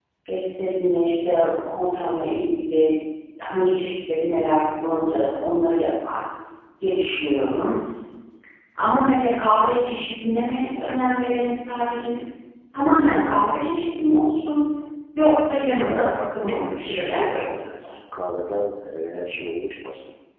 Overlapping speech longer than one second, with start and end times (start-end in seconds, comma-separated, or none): 15.9-17.4